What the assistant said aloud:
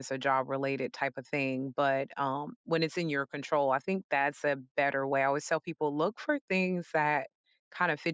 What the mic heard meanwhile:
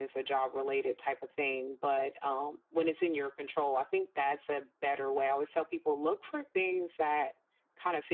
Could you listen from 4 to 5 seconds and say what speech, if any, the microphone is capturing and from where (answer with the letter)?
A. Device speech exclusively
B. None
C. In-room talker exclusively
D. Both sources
A